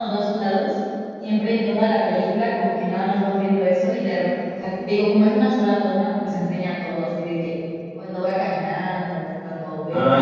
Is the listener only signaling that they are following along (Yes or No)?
No